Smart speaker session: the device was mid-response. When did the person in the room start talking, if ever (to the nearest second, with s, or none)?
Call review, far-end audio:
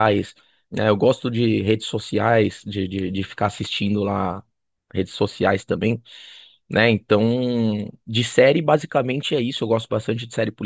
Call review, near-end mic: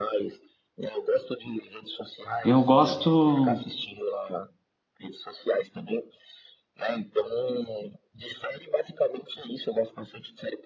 2 s